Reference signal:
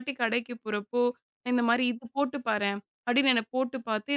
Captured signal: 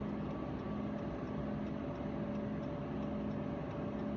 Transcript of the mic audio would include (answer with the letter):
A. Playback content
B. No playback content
B